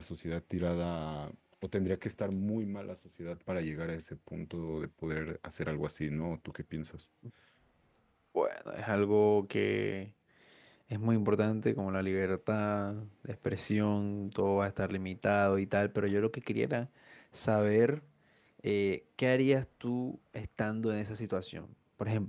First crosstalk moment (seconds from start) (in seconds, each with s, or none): none